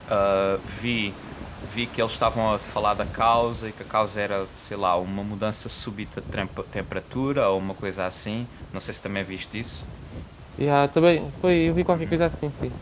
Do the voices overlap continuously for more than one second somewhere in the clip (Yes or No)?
No